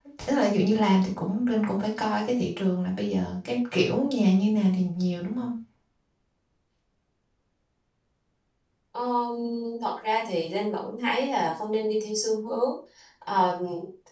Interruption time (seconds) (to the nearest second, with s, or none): none